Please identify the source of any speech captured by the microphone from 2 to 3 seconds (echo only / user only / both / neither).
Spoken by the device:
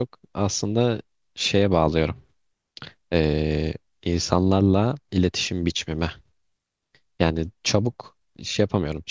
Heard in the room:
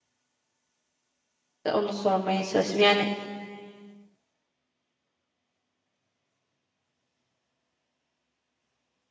user only